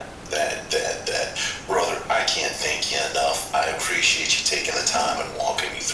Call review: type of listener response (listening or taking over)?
listening